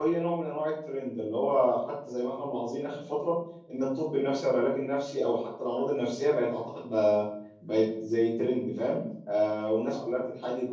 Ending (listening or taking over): listening